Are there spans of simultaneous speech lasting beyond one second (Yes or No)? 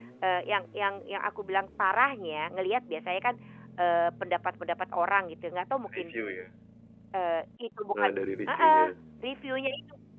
No